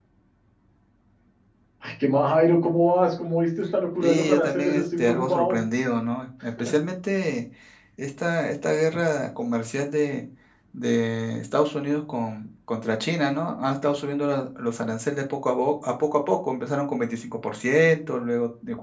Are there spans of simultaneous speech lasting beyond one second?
Yes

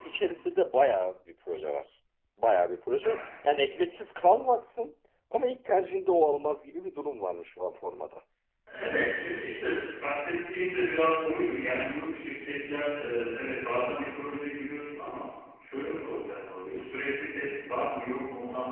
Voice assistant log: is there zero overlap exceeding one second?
Yes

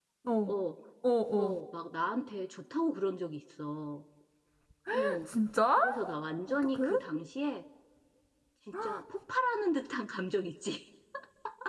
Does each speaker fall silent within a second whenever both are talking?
Yes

